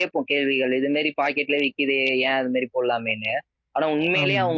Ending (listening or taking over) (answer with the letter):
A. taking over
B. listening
B